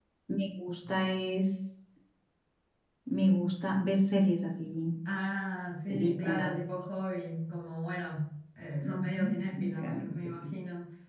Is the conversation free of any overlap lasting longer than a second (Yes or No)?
No